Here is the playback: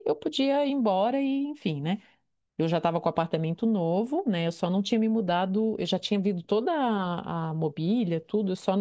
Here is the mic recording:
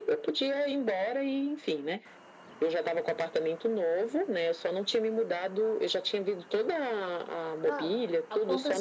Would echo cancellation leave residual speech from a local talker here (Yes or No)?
Yes